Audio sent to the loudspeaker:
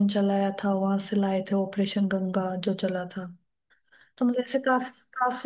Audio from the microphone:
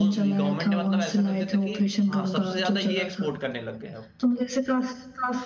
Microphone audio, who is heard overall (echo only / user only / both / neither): both